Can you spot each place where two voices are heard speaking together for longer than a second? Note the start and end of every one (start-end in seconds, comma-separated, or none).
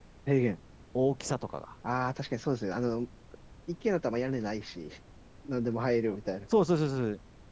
none